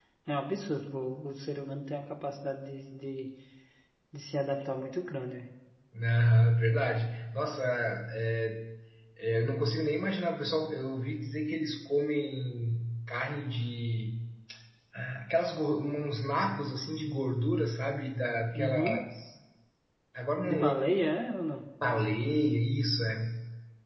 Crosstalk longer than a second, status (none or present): none